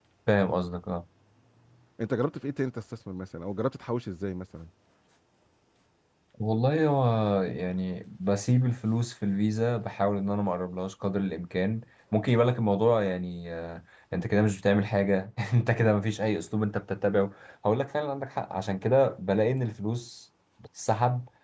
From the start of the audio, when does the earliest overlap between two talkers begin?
none

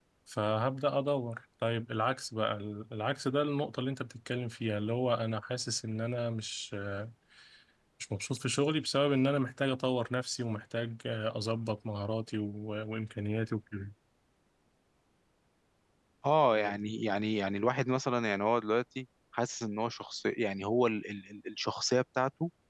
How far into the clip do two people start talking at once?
none

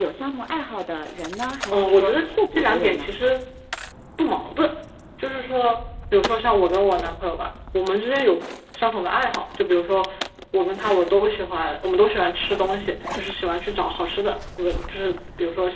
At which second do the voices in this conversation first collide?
2 s

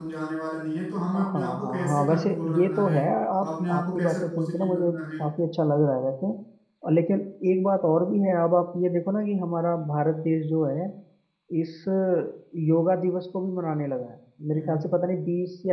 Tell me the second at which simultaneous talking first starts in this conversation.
1 s

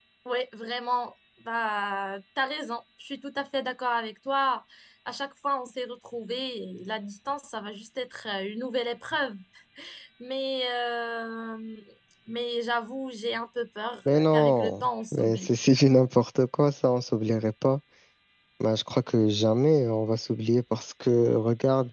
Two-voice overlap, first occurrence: 14 s

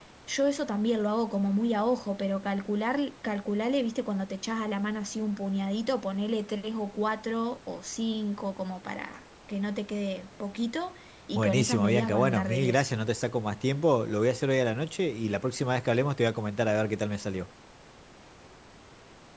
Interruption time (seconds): 11 s

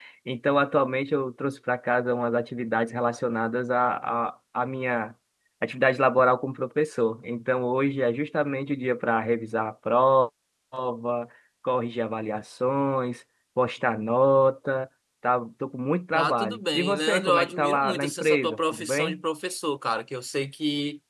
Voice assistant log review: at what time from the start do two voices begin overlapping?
16 s

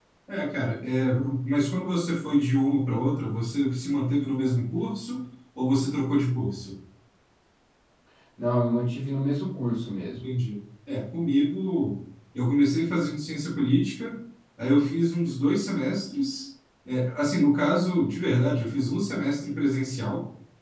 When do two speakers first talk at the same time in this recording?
none

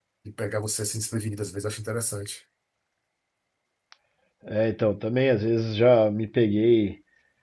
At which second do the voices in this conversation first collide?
none

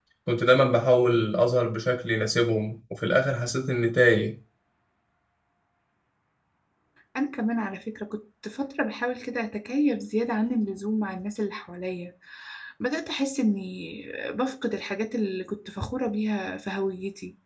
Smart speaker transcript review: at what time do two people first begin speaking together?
none

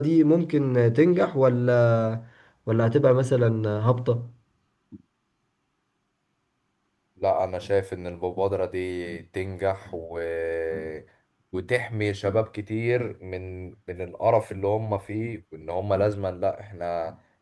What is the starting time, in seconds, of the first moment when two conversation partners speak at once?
none

